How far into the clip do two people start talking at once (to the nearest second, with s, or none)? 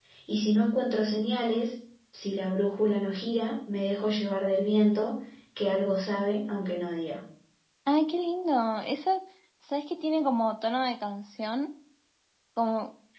none